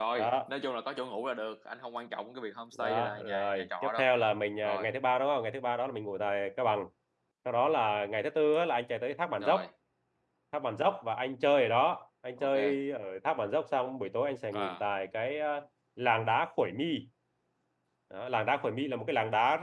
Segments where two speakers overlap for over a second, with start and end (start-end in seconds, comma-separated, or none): 2.8-4.0